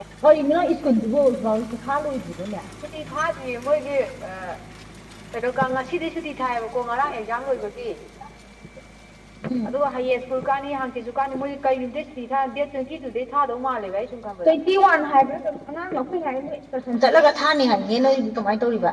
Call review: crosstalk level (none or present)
none